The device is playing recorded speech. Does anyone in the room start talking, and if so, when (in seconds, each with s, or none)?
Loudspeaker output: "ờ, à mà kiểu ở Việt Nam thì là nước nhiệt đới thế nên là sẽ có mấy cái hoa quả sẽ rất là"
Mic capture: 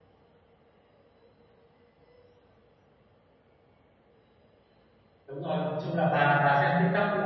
5.3 s